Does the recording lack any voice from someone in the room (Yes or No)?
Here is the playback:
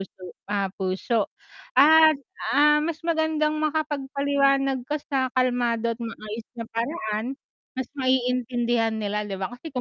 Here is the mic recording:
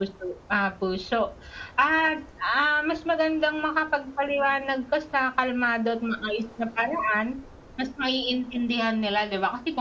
Yes